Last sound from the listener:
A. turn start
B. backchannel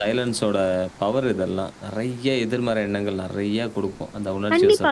A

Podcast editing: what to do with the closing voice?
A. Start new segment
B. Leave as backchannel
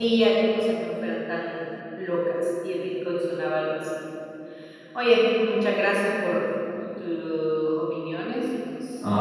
A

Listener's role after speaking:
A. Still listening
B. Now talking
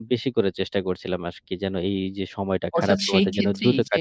B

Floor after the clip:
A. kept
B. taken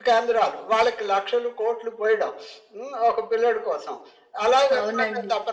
A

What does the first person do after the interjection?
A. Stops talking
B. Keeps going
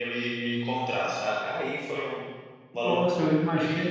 A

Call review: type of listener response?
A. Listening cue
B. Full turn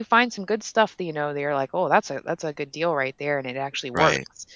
A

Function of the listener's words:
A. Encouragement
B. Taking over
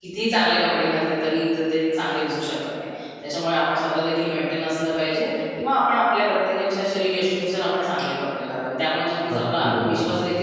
A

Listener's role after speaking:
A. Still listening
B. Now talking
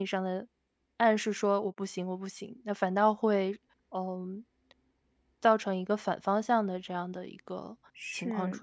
B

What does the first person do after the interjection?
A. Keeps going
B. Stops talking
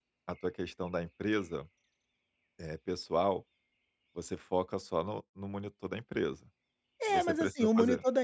B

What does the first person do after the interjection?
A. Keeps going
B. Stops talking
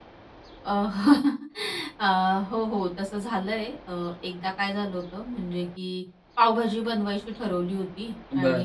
A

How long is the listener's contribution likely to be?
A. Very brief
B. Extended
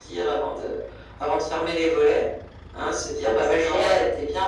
A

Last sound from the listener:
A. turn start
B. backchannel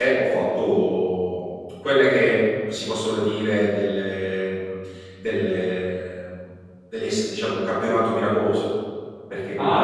A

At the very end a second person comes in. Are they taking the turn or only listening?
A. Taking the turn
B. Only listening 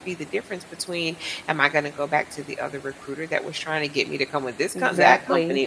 B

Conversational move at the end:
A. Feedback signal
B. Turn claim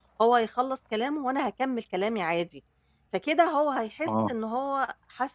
A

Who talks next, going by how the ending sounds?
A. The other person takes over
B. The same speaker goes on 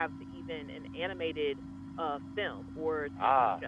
A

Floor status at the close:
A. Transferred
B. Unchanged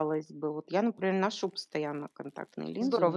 A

